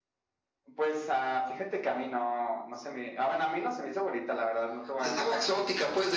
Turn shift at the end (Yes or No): Yes